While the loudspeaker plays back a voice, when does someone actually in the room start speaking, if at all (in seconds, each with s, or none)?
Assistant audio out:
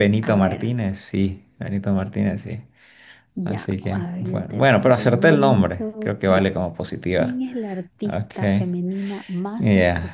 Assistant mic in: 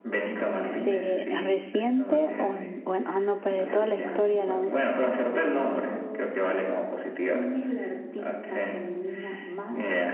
0.7 s